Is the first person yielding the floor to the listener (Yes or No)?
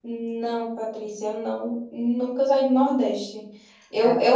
No